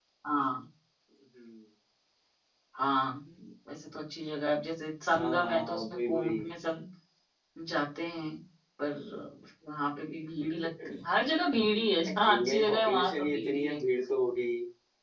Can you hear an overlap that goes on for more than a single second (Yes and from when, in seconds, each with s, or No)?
Yes, from 5.1 s